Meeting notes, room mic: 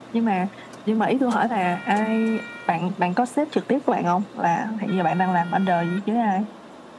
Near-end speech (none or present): none